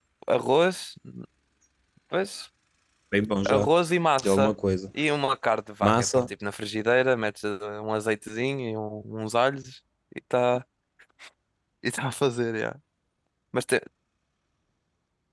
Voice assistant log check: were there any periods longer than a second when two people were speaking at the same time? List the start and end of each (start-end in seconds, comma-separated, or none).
none